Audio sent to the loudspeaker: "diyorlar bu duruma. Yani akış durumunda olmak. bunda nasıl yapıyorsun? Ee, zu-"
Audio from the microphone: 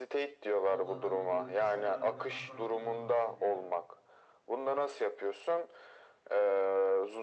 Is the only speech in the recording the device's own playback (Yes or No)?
No